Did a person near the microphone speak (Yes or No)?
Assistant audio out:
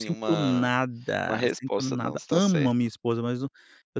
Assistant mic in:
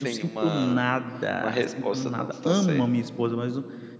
No